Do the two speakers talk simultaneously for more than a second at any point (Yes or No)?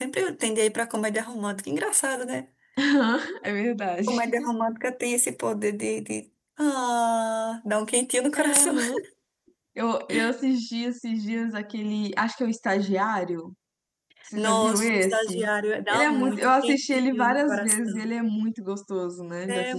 Yes